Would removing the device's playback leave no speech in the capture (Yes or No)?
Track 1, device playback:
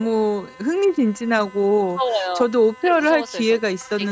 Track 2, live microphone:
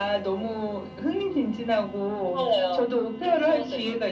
Yes